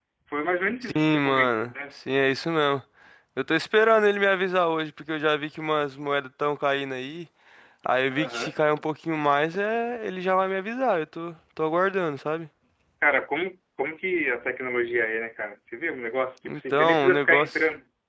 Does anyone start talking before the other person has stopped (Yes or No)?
Yes